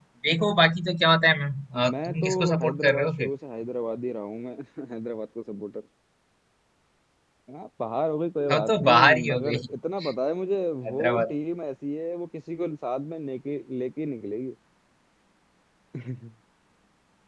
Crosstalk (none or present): present